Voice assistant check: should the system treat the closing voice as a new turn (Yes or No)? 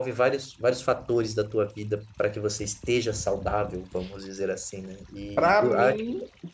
Yes